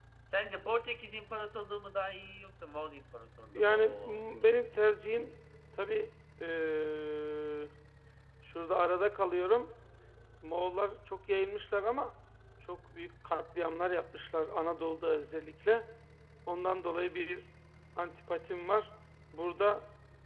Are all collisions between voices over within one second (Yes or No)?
No